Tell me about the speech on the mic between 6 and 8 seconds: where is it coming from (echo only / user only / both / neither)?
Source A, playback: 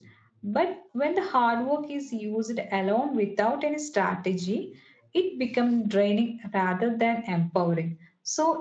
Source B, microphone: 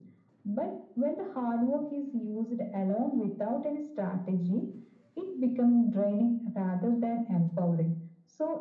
echo only